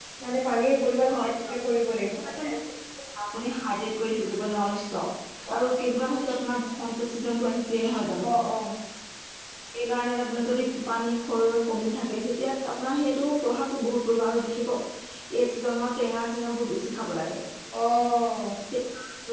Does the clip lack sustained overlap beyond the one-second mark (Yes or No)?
Yes